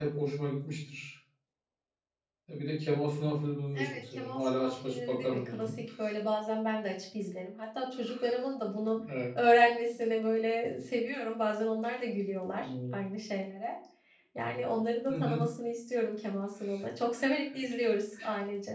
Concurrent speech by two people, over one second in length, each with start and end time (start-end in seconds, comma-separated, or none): 3.7-5.7